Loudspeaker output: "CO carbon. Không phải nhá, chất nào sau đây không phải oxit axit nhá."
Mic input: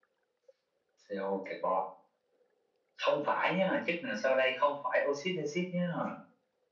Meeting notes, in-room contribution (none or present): none